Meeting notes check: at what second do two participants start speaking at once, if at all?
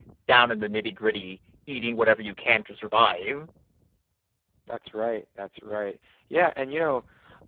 none

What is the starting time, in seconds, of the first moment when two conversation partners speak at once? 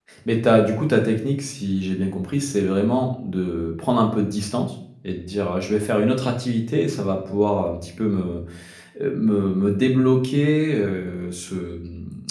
none

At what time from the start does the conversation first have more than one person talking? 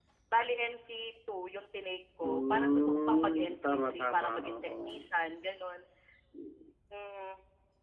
2.2 s

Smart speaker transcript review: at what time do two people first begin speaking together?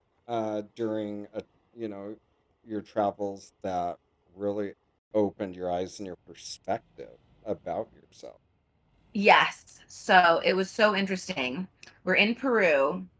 none

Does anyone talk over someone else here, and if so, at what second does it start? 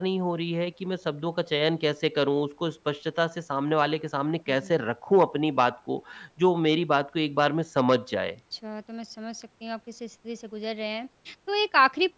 none

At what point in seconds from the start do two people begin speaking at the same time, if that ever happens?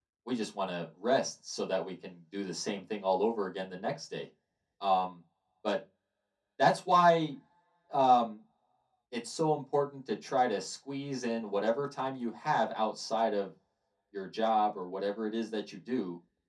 none

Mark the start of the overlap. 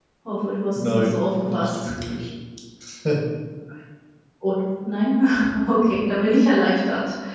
0.8 s

